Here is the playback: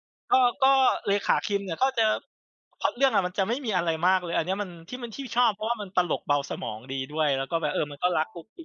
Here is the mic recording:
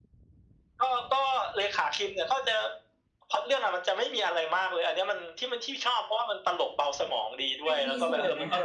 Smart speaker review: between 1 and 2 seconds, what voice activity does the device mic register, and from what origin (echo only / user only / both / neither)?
echo only